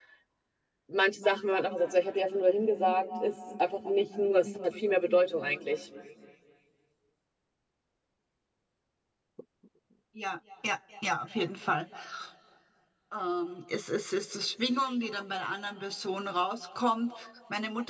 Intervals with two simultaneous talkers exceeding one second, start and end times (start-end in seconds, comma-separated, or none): none